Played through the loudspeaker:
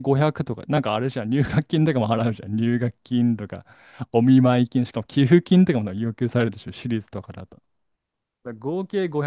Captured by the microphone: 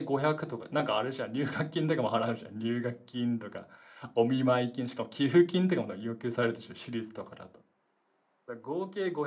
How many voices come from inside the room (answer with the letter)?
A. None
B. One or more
A